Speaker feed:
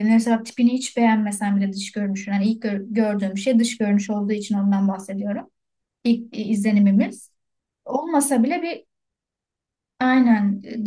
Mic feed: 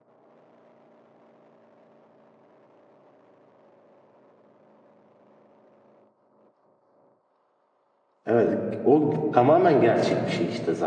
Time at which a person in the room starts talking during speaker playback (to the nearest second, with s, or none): 8 s